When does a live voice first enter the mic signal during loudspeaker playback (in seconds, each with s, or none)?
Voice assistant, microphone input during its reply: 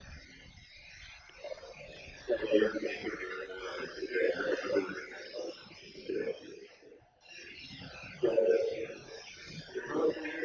none